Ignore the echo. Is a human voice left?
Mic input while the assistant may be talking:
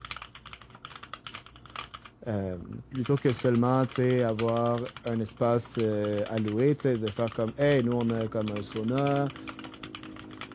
Yes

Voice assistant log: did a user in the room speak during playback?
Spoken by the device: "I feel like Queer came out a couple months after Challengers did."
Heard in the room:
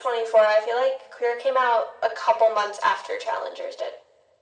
No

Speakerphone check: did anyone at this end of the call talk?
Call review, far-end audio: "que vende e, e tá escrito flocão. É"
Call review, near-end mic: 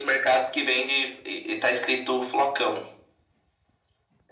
No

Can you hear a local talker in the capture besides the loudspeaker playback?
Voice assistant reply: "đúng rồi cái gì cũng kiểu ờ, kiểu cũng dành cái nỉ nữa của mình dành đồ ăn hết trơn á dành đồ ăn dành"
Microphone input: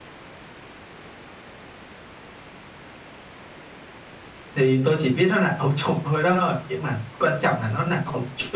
Yes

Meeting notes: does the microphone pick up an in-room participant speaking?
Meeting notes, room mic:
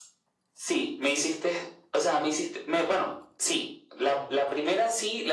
No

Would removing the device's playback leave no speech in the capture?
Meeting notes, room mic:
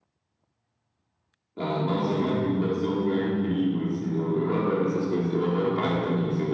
Yes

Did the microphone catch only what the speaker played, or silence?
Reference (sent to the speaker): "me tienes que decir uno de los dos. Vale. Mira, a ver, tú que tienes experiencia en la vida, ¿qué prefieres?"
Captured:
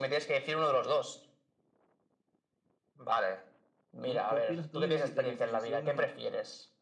No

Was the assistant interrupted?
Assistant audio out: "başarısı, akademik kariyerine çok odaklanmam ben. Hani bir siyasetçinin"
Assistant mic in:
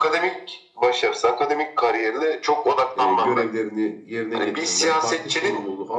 Yes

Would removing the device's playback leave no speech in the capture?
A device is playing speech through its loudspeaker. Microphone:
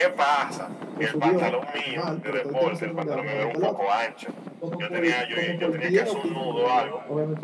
No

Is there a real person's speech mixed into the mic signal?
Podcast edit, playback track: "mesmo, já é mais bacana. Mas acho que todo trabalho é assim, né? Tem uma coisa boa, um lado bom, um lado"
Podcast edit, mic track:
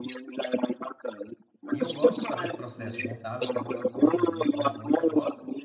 Yes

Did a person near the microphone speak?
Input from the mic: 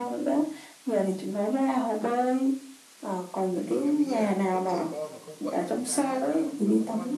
Yes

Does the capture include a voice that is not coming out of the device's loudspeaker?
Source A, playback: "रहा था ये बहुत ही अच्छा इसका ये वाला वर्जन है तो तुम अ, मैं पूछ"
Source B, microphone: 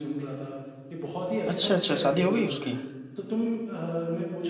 Yes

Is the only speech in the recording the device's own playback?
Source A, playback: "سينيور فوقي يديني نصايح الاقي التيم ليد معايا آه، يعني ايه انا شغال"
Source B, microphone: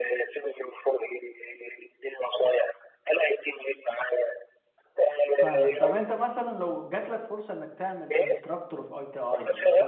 No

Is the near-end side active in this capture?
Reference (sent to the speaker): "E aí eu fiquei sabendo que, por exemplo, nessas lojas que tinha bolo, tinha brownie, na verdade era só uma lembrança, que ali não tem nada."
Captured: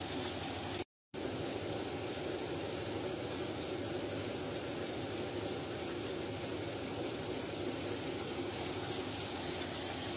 No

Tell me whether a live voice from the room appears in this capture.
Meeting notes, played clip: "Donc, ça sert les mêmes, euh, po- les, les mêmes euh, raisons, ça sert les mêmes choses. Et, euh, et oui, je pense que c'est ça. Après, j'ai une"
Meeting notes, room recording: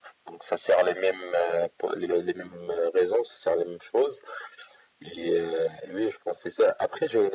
No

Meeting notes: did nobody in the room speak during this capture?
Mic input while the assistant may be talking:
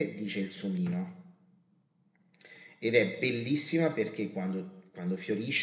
Yes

